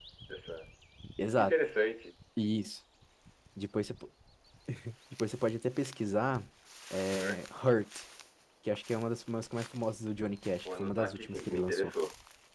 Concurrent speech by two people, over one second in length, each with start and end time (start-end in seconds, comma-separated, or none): 10.7-11.9